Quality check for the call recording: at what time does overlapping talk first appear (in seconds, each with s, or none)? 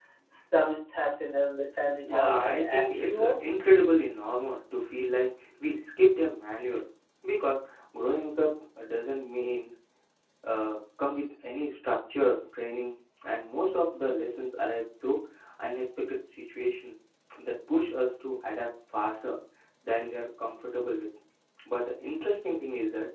2.0 s